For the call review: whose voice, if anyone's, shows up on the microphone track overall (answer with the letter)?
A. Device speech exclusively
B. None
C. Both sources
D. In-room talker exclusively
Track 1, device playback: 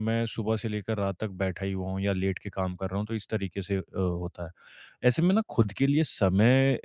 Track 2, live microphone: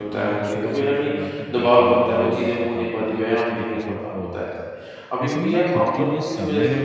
C